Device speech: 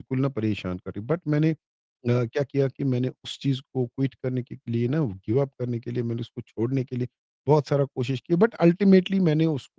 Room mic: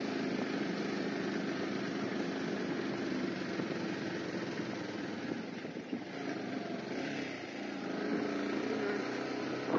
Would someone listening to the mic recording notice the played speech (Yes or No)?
No